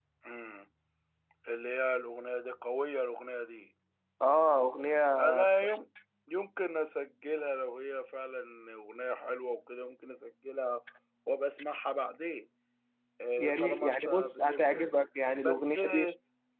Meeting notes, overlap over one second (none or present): present